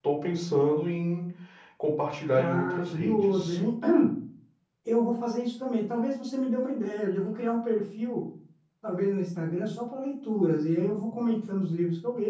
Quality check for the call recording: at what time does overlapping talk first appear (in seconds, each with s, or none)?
2.4 s